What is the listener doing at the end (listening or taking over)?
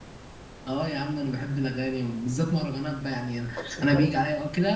listening